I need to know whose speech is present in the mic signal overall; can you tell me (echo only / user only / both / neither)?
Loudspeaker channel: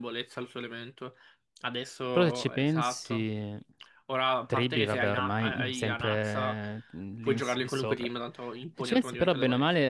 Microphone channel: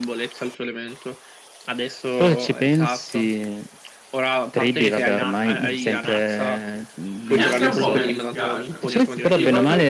both